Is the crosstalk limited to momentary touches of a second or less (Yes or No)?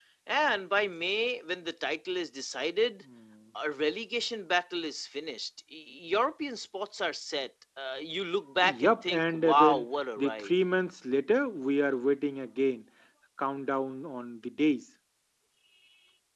No